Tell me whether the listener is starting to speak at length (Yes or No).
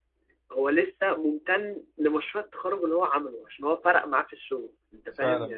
Yes